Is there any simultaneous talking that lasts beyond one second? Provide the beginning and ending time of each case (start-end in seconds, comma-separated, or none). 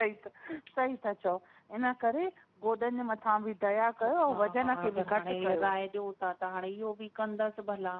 4.0-5.7